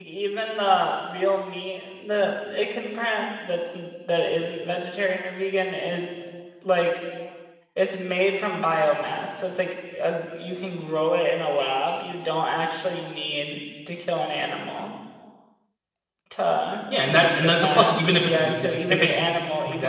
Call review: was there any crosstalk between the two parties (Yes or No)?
Yes